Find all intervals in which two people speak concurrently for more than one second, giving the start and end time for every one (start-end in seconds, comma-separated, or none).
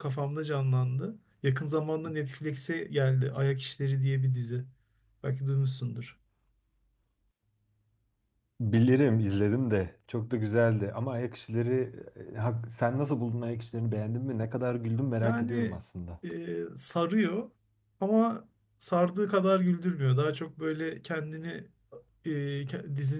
none